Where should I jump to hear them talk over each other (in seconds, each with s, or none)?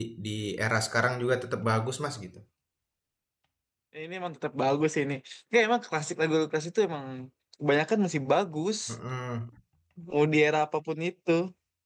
none